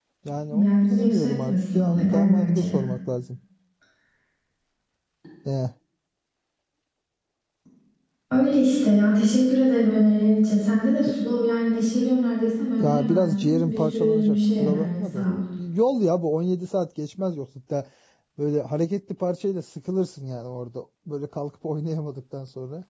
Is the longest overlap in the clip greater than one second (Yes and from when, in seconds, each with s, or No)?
Yes, from 0.6 s